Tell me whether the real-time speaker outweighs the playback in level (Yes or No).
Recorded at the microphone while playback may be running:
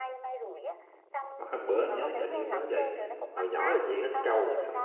Yes